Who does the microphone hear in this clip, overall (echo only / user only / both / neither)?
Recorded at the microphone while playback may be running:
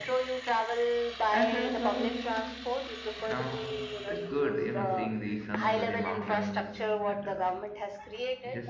both